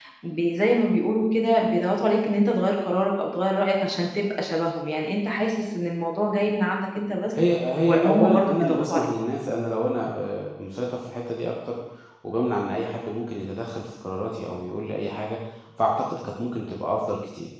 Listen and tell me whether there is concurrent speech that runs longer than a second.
Yes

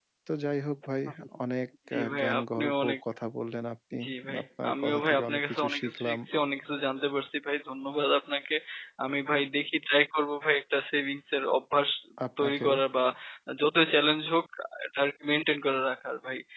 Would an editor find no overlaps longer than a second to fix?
No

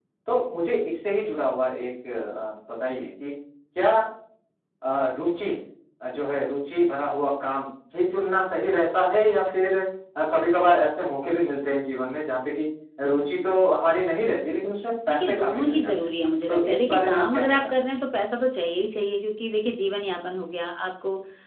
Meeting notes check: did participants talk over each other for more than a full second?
Yes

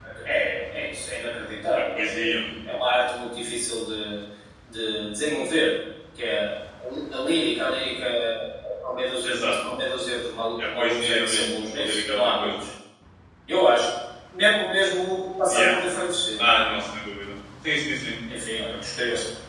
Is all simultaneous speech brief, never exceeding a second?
No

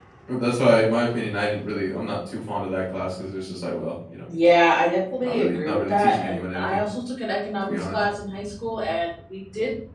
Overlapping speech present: Yes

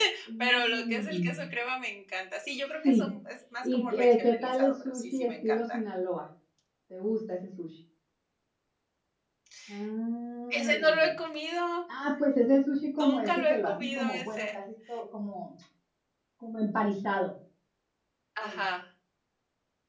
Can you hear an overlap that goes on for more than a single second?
Yes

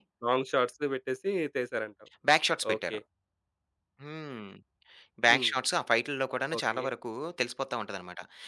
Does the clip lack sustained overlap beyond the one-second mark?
Yes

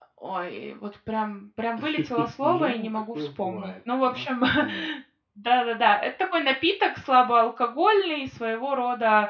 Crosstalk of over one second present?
Yes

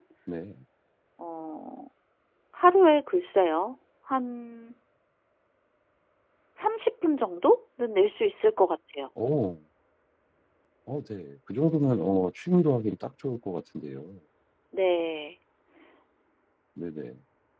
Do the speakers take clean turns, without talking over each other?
Yes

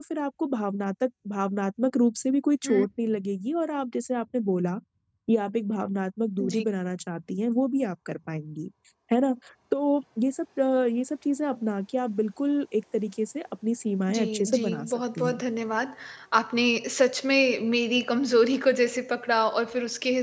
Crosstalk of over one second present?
Yes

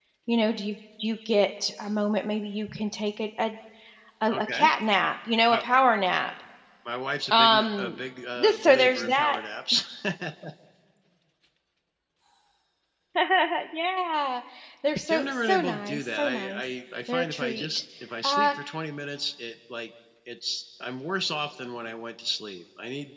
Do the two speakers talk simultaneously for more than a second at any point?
Yes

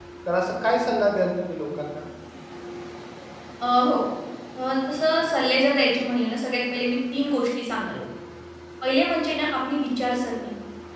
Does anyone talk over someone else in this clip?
No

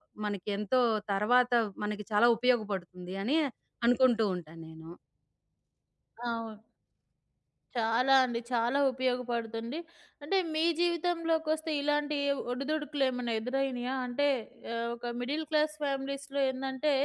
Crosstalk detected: No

